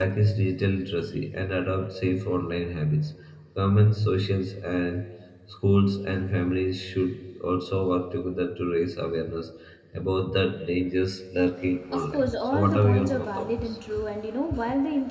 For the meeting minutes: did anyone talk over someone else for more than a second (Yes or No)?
Yes